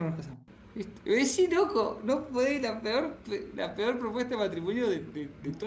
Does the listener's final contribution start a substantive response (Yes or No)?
Yes